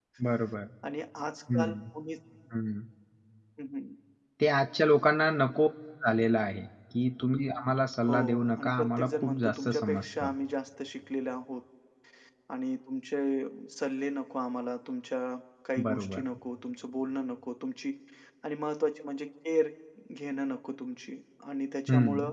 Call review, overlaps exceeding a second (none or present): present